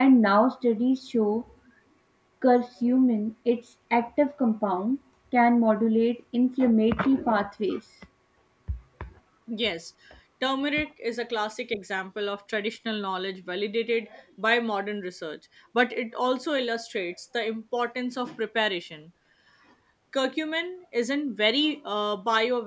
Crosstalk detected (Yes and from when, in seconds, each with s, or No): No